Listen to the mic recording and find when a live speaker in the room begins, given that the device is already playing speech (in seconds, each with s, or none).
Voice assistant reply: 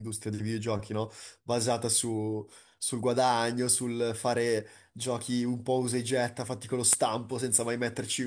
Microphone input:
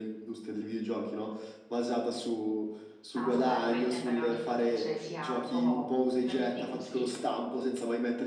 3.1 s